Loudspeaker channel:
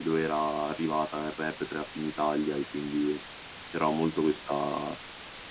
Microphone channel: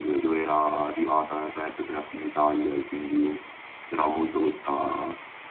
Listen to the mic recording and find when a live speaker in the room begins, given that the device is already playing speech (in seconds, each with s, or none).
none